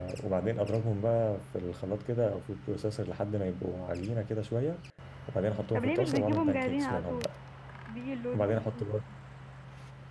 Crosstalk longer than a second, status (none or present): present